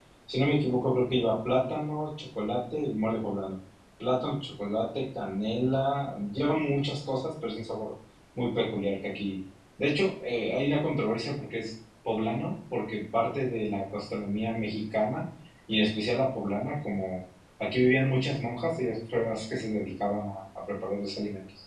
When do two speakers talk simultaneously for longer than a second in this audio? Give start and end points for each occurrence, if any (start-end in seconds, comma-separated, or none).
none